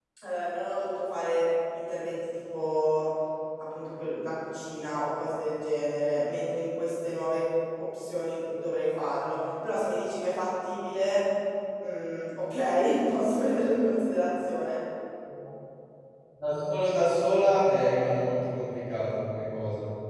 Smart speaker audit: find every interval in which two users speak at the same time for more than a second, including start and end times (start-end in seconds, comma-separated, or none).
none